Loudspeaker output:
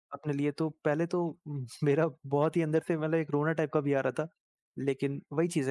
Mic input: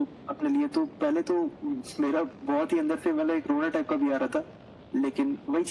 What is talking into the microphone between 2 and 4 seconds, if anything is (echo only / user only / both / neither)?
echo only